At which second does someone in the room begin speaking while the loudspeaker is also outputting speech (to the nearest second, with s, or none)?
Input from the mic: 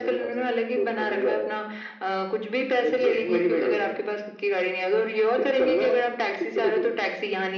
none